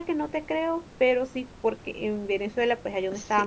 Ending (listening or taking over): listening